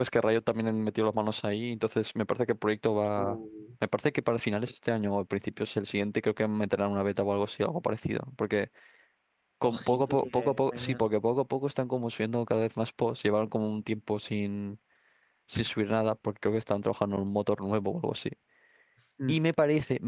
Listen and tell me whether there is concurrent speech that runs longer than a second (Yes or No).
Yes